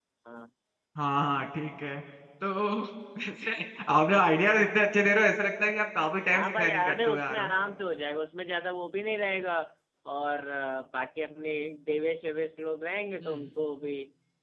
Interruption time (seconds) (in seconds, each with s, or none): 6.3 s